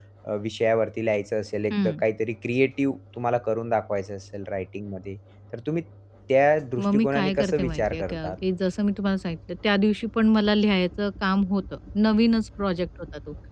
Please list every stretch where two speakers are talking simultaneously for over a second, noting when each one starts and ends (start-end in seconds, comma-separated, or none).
6.8-8.3